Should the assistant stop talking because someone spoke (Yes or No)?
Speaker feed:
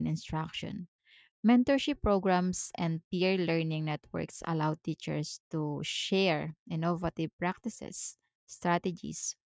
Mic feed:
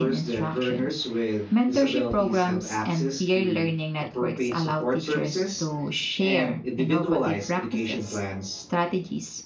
Yes